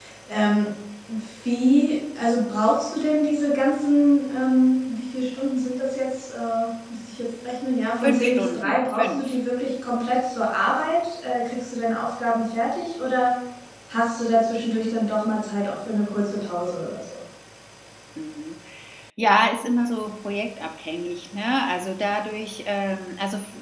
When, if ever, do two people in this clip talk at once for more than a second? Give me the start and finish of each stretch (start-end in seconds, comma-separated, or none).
8.0-9.3